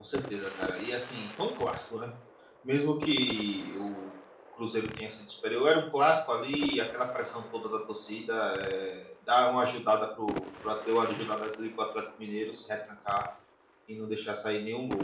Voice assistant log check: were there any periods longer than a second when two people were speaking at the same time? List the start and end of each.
none

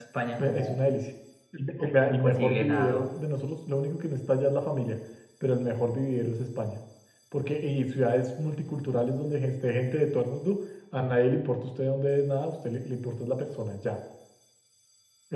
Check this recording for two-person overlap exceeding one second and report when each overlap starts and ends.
1.8-3.0

